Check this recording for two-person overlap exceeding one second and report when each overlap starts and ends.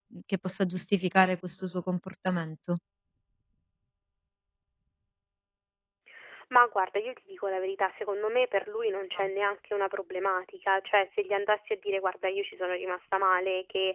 none

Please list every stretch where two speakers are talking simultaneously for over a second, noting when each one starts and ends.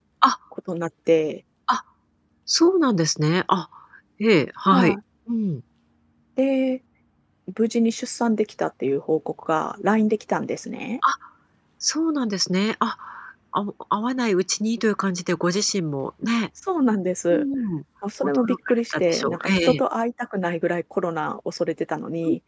18.2-19.8

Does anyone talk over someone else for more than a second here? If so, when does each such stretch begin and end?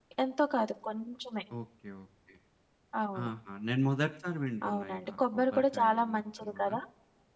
4.7-6.7

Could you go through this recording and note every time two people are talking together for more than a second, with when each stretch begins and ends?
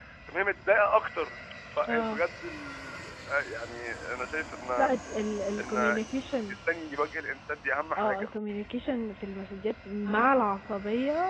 none

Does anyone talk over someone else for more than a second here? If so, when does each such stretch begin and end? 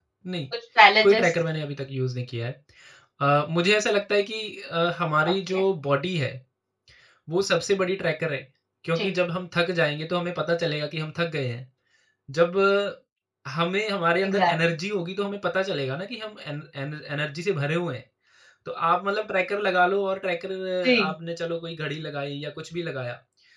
none

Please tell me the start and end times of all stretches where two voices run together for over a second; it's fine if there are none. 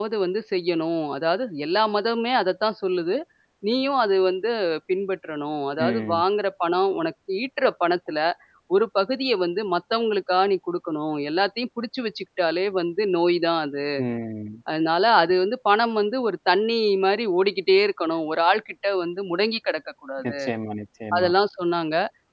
none

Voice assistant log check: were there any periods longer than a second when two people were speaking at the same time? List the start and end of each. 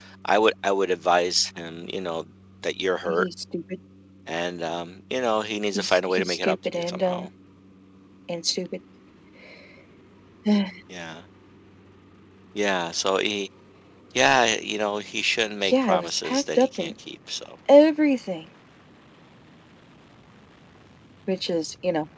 5.8-7.3, 15.6-16.9

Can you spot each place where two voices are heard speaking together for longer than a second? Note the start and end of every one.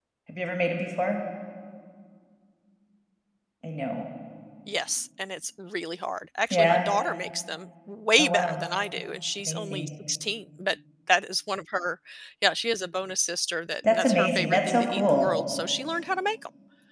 13.9-15.3

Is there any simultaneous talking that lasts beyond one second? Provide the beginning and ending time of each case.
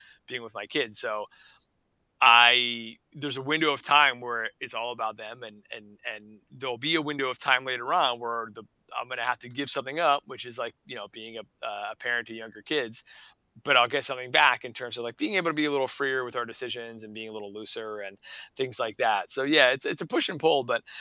none

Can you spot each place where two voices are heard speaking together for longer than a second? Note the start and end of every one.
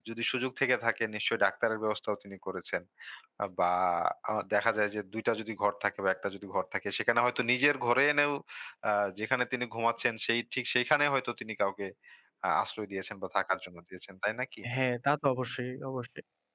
none

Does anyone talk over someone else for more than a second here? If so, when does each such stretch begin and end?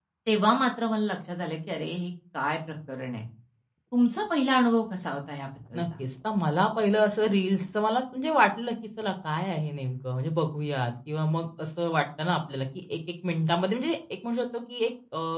none

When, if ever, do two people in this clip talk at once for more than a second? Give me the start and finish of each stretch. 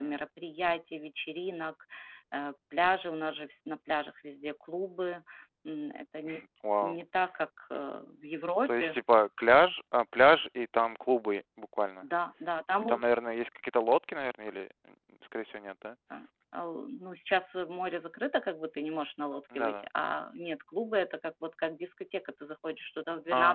none

